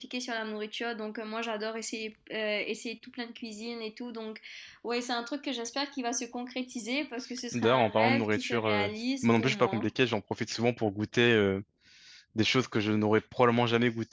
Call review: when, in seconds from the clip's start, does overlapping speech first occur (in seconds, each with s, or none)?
7.5 s